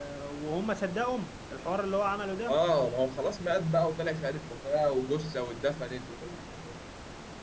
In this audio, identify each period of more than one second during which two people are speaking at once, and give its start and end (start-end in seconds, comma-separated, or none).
none